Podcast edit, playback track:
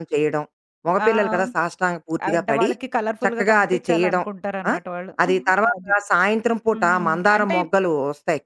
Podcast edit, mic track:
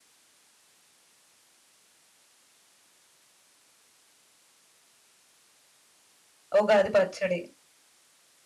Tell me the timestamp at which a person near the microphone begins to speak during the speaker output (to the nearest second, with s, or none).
7 s